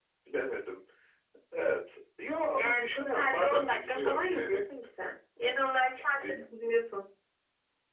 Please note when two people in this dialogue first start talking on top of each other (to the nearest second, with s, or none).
2 s